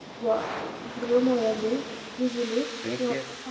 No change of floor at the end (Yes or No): Yes